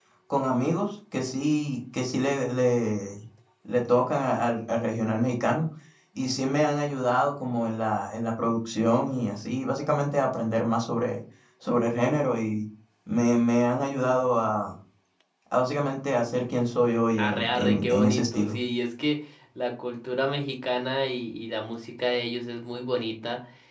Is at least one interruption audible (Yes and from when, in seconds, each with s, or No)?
Yes, from 17.2 s